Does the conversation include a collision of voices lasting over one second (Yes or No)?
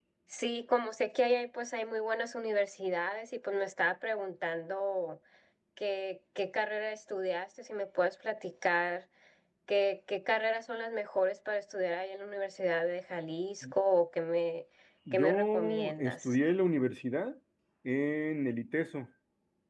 Yes